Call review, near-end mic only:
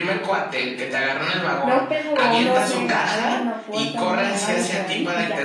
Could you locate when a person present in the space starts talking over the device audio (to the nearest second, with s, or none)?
2 s